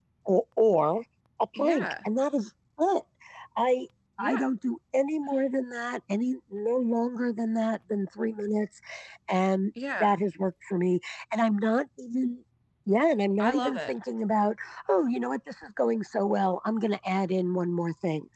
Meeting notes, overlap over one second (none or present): none